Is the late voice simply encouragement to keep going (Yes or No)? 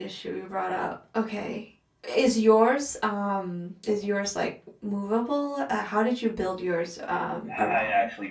No